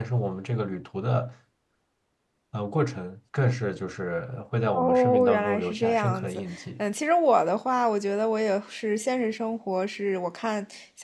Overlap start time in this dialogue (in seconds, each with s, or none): 4.7 s